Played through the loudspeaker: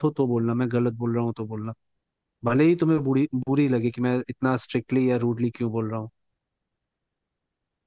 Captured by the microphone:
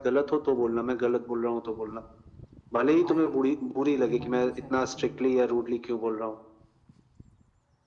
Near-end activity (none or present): present